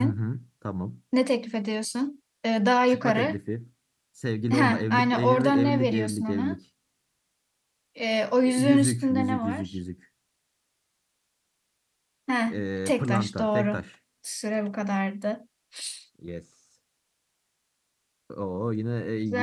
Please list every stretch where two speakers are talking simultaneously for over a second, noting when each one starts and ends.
4.5-6.6, 8.5-9.7, 12.5-13.8

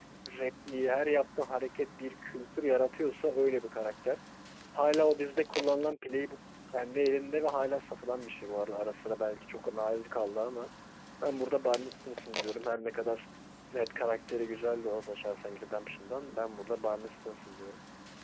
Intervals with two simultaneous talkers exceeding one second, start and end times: none

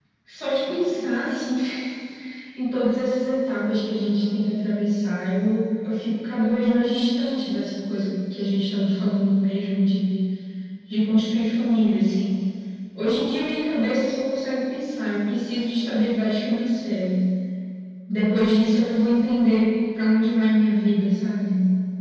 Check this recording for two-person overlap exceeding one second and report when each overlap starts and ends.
none

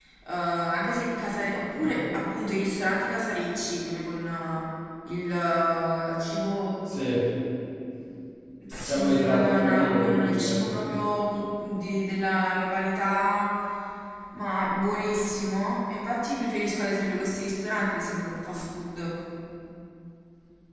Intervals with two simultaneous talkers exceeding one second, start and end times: 8.8-10.8

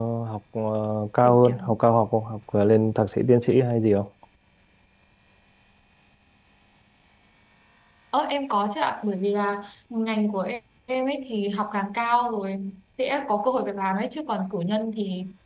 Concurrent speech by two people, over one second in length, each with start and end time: none

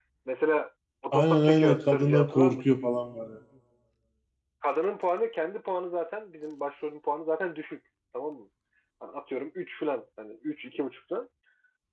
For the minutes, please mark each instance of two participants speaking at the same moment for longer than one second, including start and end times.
1.1-2.8

